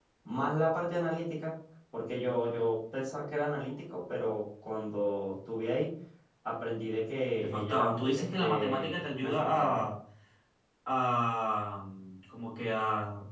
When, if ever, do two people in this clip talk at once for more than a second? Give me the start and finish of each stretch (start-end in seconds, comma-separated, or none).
7.4-9.8